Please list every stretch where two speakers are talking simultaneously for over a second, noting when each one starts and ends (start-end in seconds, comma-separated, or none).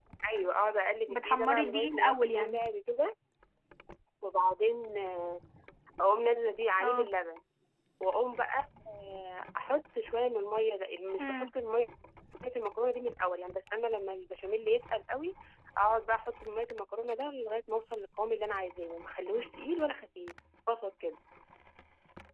1.1-2.6